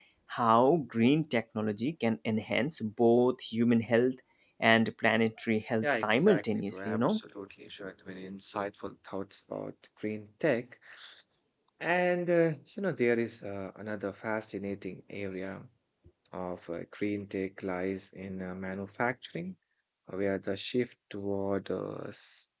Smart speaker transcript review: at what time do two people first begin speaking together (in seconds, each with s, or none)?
5.8 s